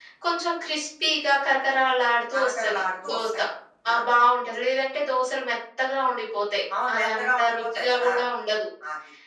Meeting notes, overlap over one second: present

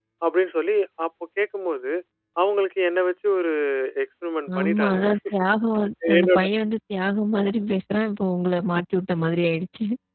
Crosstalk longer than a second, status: none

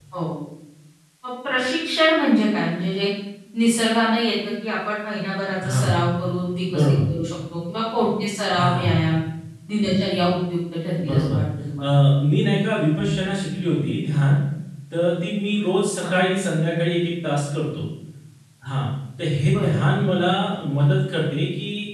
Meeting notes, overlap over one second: none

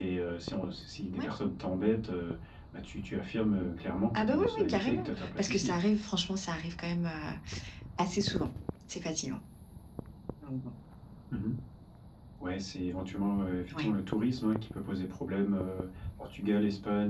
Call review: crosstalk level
present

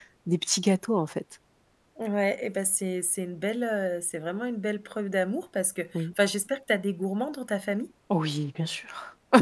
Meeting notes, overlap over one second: none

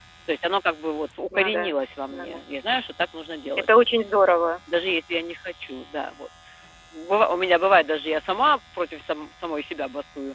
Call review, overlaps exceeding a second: none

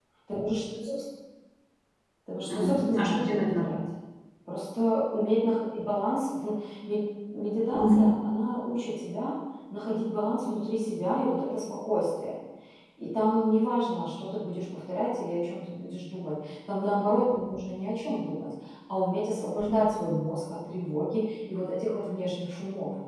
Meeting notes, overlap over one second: present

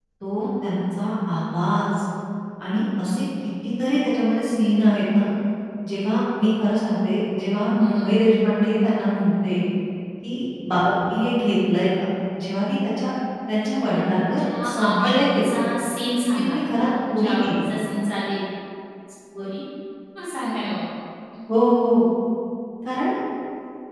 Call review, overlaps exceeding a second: present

